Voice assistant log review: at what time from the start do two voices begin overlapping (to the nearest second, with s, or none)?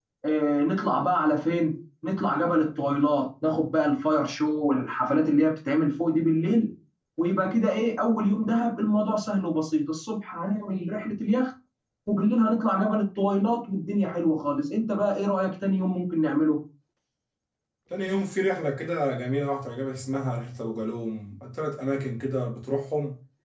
none